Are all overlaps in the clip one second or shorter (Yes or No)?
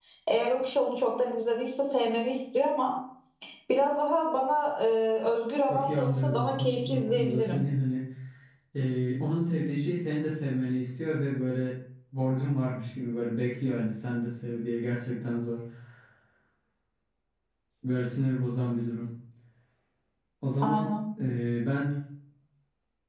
No